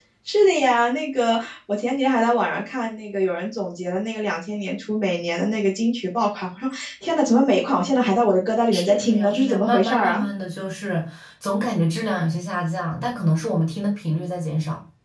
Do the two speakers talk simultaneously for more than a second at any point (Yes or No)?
Yes